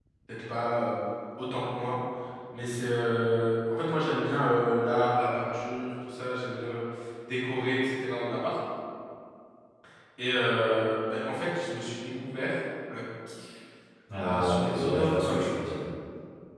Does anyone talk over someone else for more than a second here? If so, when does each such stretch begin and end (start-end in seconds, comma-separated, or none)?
14.2-15.5